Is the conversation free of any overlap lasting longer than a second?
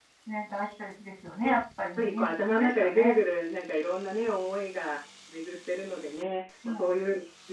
No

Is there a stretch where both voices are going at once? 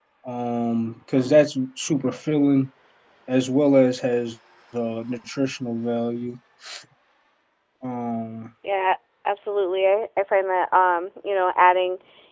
No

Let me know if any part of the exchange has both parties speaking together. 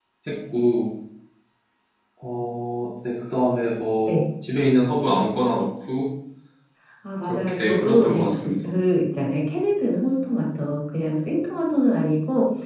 Yes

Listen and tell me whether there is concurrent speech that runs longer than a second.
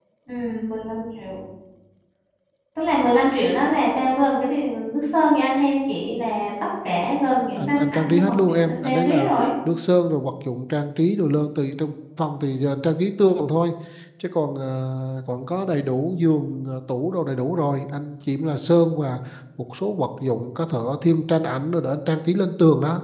Yes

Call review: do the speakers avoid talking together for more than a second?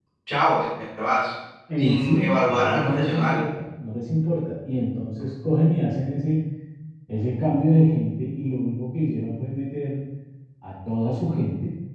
No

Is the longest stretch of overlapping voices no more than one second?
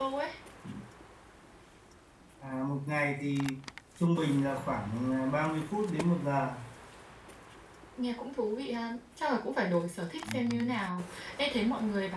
Yes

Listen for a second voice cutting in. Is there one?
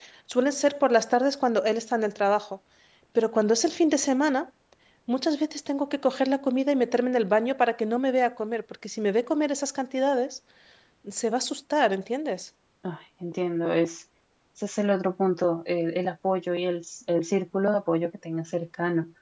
No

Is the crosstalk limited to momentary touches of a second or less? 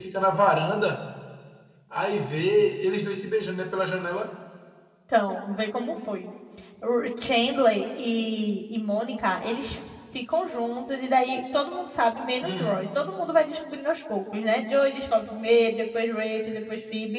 Yes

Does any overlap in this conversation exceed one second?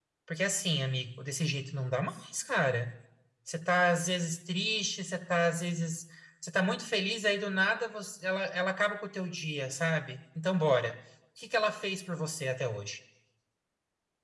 No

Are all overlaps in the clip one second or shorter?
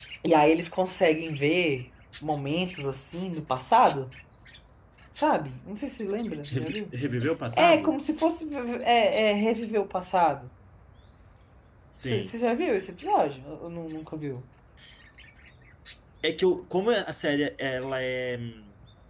Yes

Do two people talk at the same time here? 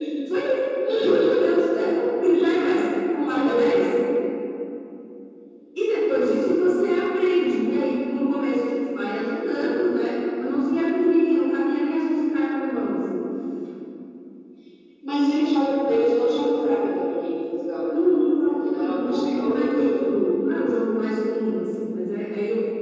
Yes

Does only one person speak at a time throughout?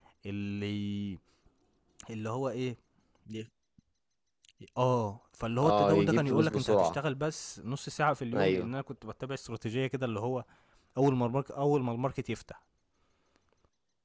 No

